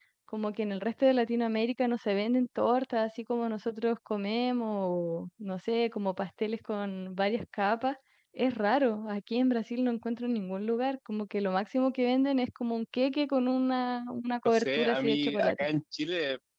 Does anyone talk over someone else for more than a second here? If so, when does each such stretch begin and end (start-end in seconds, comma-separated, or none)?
14.4-15.7